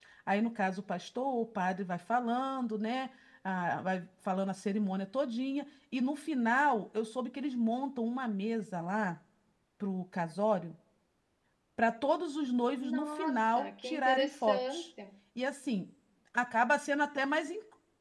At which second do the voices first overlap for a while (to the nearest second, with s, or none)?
13 s